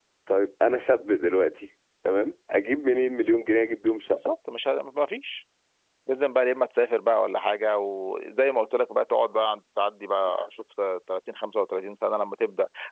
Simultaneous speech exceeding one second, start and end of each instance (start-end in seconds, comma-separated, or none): none